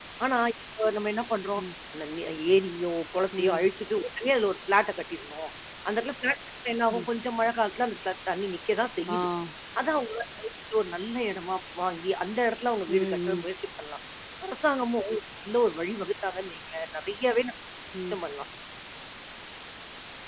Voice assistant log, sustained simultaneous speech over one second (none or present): none